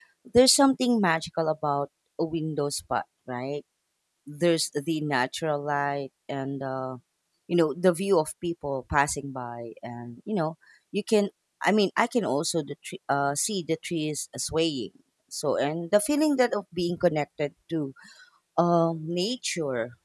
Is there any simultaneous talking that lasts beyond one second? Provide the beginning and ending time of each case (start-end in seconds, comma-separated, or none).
none